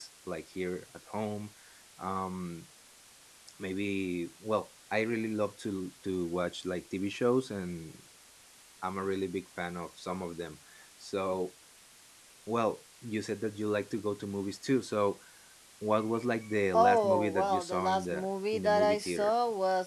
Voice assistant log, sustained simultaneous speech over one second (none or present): present